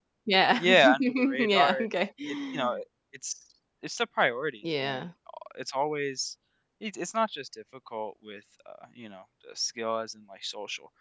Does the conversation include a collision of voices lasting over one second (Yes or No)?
Yes